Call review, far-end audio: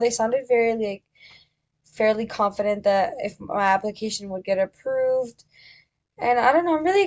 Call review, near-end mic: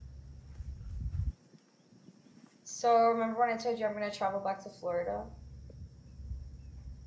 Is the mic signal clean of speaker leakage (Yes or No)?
Yes